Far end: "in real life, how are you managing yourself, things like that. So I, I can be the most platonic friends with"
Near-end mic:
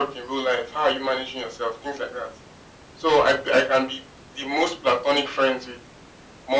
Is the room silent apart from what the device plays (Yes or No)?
Yes